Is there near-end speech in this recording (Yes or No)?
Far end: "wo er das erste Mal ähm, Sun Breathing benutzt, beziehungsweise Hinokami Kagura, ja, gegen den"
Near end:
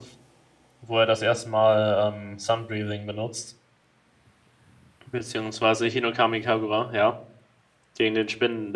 No